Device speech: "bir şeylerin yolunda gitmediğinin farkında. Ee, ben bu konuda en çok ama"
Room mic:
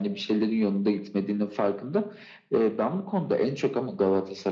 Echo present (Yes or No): Yes